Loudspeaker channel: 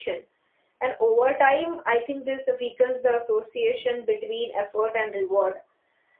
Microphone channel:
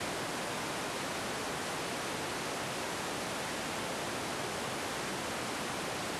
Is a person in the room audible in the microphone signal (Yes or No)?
No